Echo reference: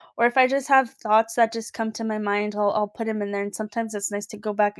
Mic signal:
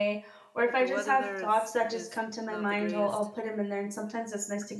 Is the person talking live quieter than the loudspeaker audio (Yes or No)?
Yes